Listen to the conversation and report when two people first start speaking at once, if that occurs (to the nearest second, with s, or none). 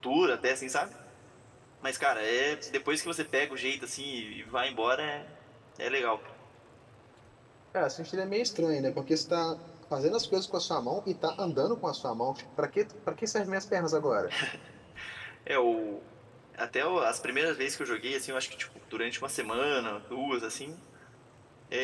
none